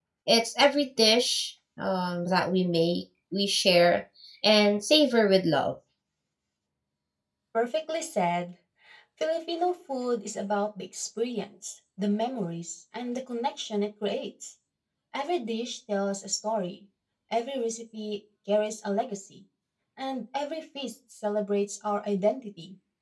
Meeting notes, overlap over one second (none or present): none